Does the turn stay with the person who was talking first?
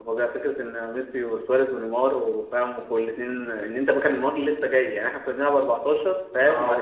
Yes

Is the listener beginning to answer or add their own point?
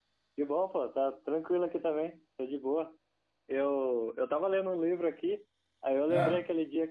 No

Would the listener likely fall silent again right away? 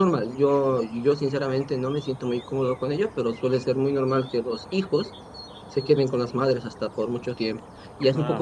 Yes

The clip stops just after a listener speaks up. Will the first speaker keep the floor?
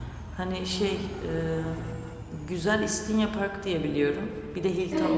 No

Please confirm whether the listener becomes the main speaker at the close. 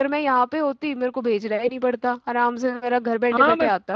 Yes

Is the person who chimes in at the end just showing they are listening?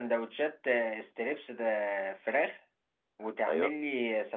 Yes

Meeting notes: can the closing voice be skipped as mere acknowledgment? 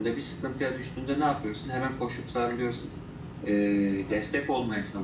Yes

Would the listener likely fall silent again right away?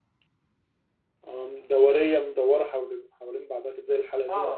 No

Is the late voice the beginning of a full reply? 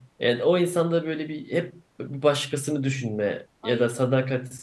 No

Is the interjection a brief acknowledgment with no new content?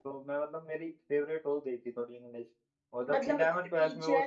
No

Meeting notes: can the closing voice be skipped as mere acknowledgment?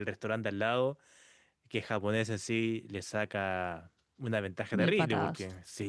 Yes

